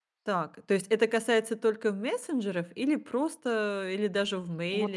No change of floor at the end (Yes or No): No